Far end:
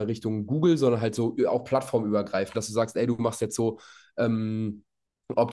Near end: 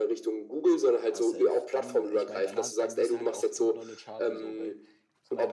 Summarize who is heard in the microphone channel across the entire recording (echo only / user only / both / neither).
both